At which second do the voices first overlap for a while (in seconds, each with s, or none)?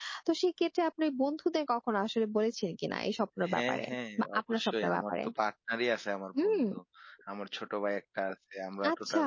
3.5 s